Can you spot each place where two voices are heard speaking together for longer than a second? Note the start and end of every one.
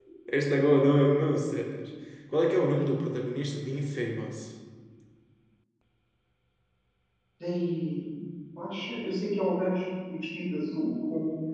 none

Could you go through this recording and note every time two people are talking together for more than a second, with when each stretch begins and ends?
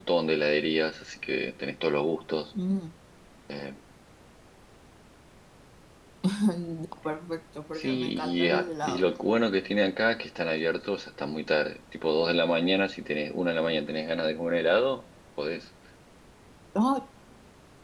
7.8-9.1

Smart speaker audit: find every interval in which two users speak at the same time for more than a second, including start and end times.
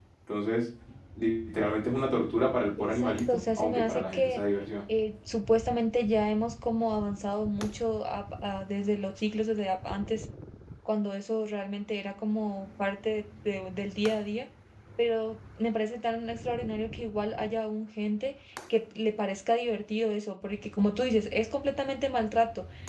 2.8-4.4

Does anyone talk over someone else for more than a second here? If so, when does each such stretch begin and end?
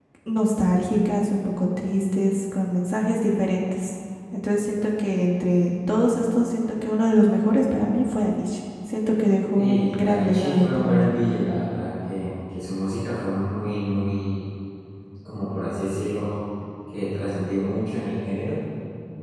9.6-11.1

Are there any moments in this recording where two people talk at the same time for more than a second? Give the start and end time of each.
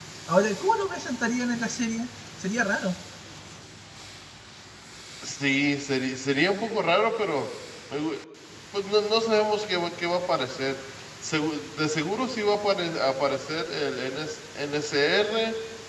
none

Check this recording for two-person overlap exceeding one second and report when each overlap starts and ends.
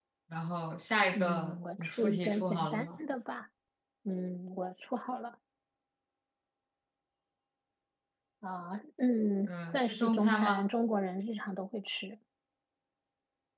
1.1-2.9, 9.5-10.7

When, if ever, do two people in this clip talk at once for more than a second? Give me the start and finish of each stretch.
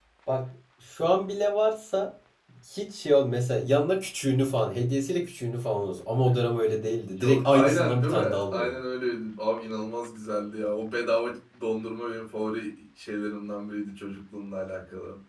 7.2-8.8

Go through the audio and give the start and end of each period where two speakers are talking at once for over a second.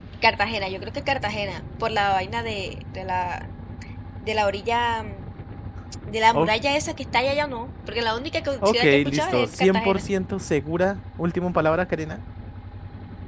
8.6-10.0

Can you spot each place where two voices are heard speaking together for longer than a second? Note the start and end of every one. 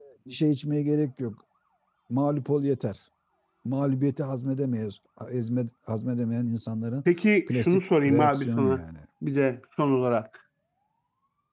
7.5-8.8

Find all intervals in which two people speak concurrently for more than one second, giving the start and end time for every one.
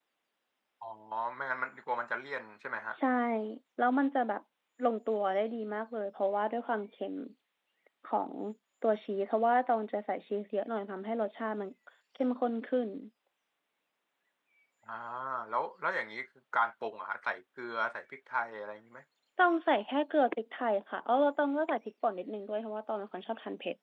none

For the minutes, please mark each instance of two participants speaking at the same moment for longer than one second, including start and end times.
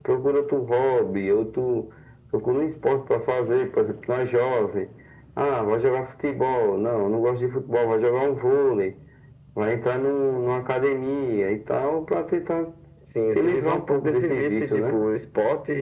13.3-15.0

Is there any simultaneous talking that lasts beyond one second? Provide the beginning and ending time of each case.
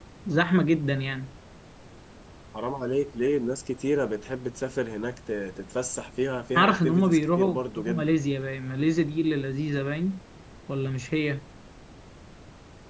6.6-8.1

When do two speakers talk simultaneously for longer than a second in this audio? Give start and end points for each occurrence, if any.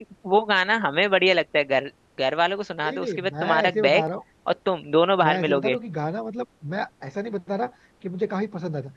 2.8-4.0

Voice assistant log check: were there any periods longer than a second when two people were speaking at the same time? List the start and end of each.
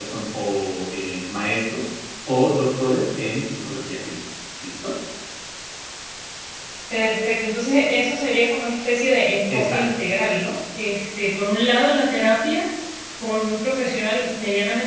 none

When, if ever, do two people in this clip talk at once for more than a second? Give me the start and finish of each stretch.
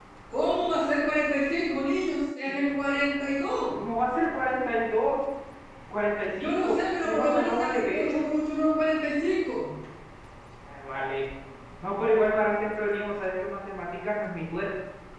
6.4-8.2

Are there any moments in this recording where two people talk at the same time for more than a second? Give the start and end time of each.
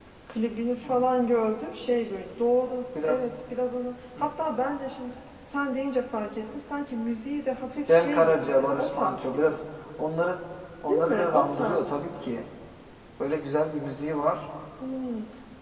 7.9-9.6, 10.9-12.2

